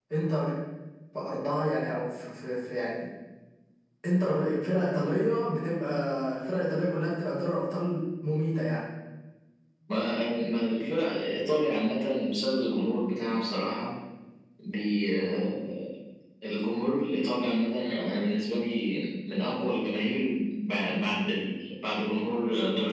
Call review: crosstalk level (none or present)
none